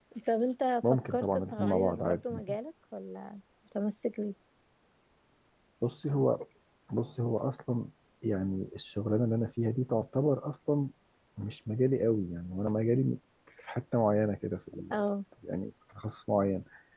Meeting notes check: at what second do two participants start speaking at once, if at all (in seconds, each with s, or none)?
0.8 s